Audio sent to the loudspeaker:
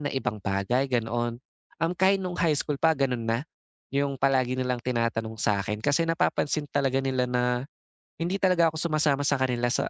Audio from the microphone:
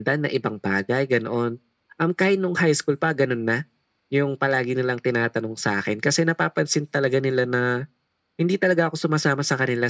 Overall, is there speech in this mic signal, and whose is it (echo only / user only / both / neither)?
echo only